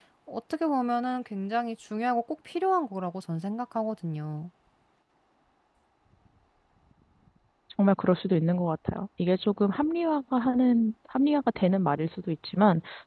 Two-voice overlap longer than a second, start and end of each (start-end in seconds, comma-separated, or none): none